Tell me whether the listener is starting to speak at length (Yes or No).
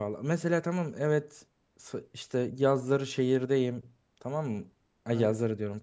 No